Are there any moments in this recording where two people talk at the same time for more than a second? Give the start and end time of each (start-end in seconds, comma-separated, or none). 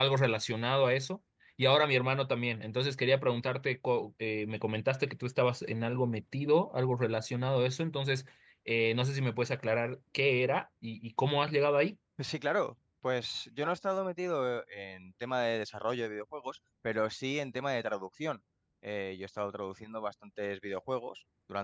none